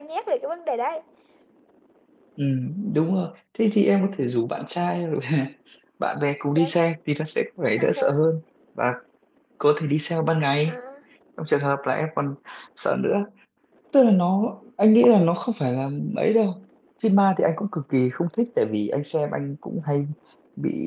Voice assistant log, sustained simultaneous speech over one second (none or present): none